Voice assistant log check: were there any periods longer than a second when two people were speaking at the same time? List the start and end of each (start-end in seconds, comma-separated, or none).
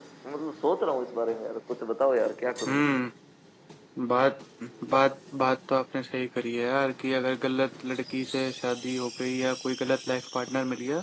none